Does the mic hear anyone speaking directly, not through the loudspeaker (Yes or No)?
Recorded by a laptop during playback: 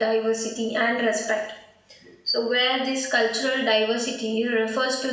Yes